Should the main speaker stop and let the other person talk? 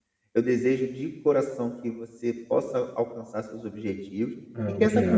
No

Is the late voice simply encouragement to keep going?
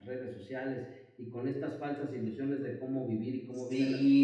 No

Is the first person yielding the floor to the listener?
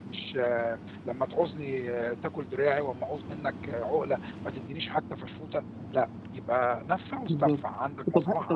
Yes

